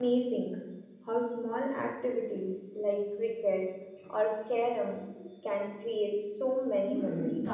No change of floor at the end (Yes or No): No